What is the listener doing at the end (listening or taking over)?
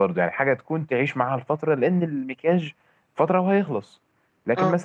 listening